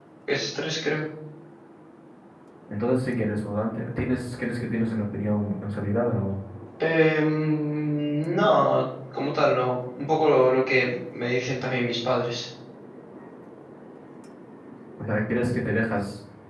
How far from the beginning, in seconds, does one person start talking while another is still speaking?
none

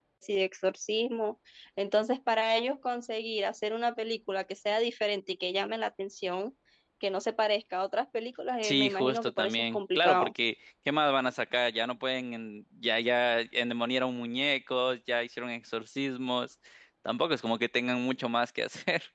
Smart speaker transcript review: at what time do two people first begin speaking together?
8.6 s

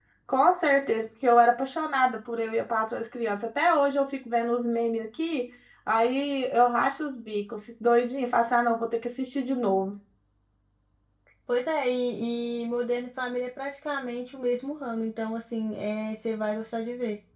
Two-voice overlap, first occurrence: none

